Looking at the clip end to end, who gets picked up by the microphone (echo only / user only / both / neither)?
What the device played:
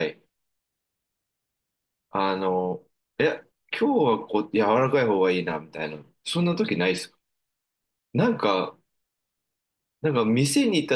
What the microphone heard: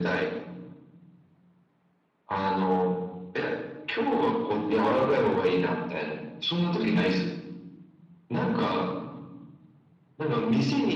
echo only